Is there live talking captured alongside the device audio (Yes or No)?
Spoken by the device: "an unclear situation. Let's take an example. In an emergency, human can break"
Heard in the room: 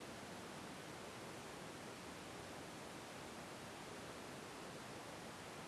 No